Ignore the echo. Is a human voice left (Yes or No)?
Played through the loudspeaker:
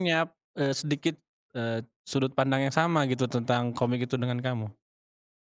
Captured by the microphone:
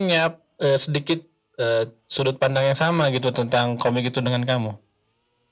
No